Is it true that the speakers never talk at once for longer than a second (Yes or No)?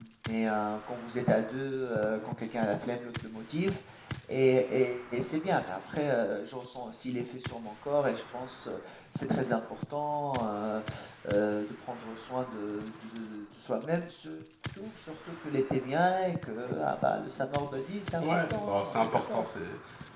No